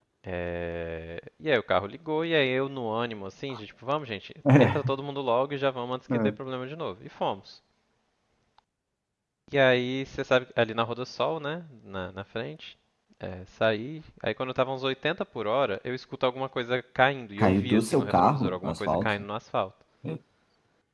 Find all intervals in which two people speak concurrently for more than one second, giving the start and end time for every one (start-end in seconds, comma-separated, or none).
17.4-19.1